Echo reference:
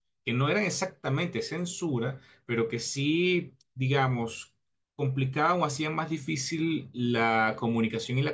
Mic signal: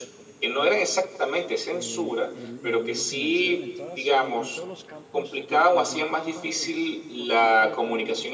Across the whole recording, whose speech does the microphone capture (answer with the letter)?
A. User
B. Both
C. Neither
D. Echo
B